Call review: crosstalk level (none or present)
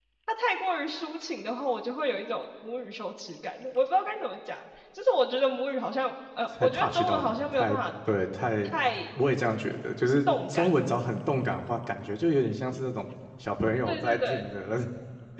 present